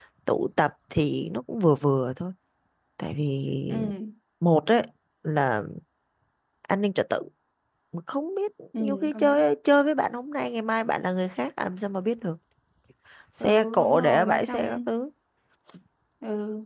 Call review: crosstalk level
present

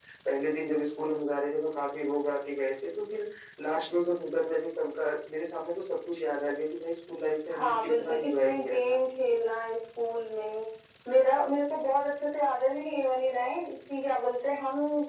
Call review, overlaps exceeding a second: present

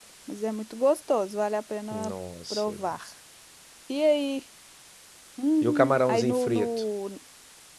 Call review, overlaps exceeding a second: present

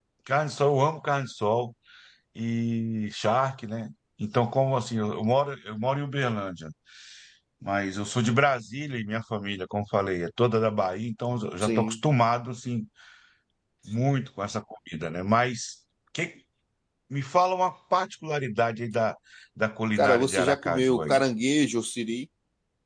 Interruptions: present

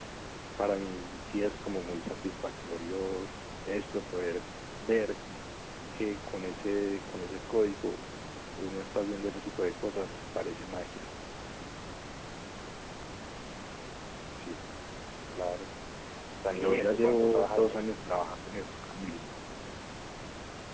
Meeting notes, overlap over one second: present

